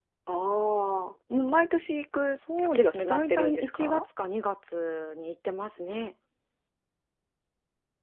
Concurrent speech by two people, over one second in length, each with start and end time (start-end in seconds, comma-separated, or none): 2.6-4.0